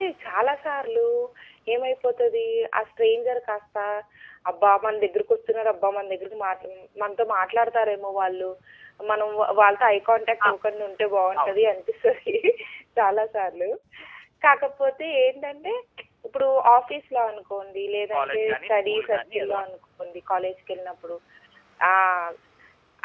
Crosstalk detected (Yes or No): Yes